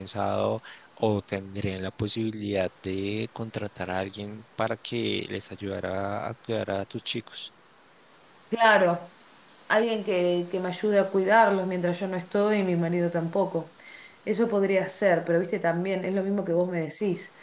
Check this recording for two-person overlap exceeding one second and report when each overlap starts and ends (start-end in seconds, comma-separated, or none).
none